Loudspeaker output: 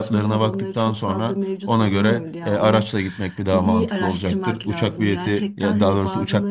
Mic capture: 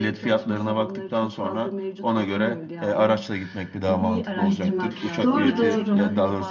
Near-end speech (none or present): present